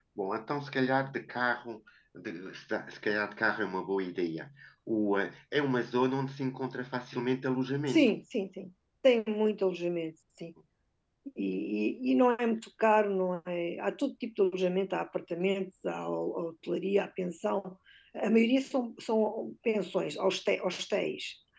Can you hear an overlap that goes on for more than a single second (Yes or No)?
No